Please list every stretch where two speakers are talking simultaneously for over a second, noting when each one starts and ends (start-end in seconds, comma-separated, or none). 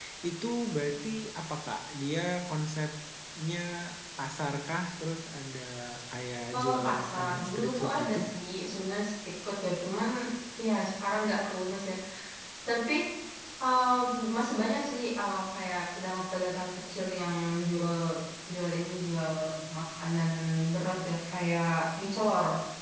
6.7-8.2